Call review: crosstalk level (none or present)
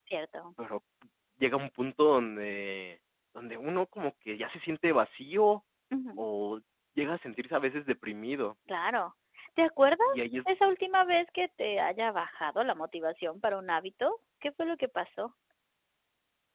none